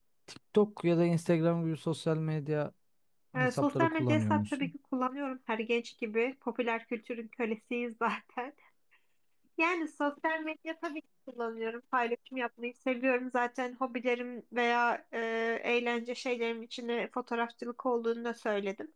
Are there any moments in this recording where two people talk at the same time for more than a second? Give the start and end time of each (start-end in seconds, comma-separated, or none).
3.4-4.7